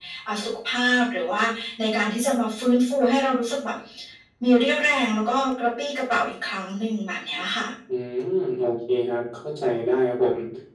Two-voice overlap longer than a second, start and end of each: none

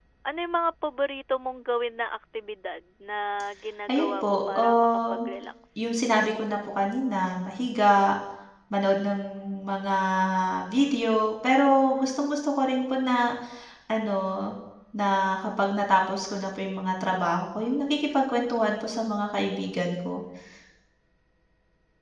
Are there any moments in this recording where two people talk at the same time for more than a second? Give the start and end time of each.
3.9-5.3

